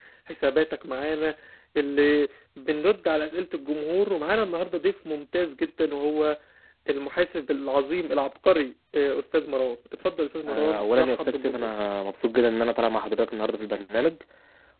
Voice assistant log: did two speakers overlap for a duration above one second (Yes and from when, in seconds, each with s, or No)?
Yes, from 10.4 s